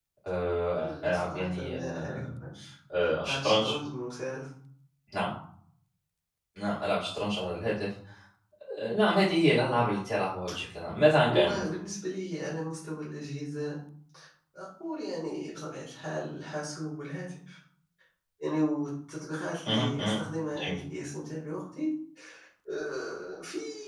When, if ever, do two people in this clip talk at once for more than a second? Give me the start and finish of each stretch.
0.8-2.2

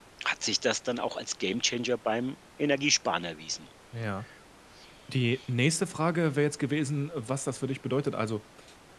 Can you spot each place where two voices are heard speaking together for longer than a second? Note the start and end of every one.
none

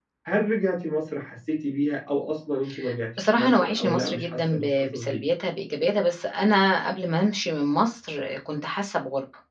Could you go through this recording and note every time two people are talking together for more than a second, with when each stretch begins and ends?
3.2-5.2

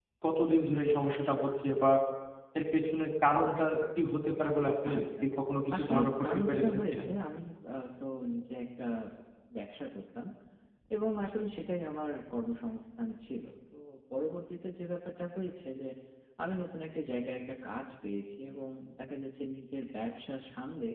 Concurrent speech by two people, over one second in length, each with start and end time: 5.8-7.0

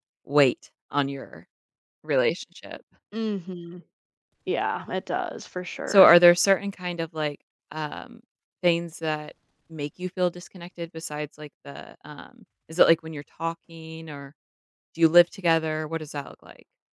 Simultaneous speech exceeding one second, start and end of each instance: none

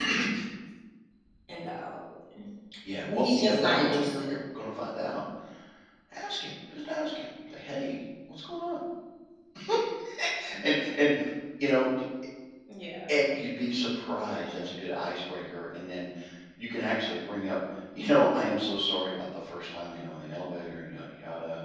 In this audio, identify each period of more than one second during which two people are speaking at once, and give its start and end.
3.1-4.3

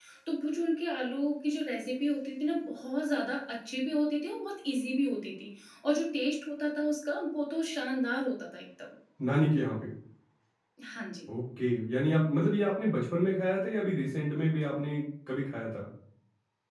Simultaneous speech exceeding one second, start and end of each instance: none

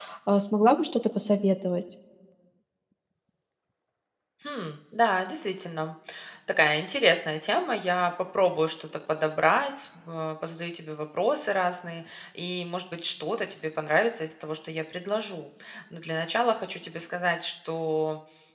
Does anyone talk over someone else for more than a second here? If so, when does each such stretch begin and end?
none

